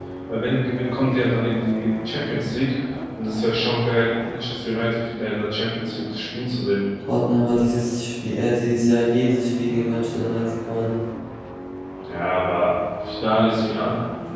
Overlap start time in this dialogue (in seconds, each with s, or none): none